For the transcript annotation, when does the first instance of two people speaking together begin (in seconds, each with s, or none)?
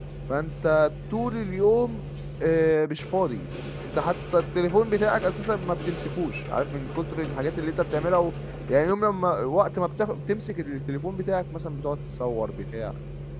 none